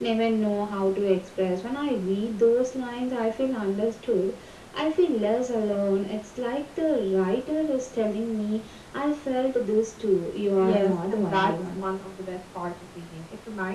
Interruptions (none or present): present